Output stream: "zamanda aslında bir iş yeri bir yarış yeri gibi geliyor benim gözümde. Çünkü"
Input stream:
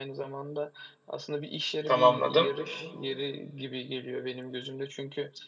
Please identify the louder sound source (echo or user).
user